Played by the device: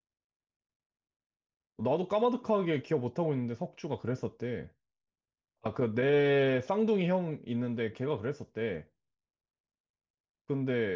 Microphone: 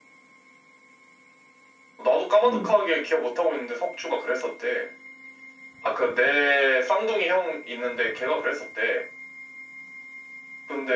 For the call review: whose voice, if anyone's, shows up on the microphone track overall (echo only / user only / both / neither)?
both